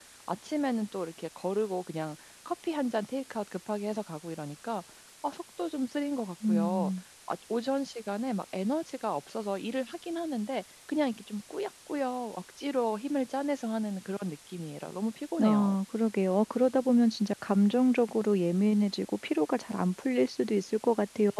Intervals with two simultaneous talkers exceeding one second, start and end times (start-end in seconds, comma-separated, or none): none